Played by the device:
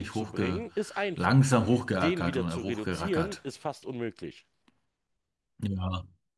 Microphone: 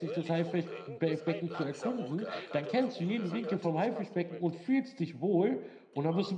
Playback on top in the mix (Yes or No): No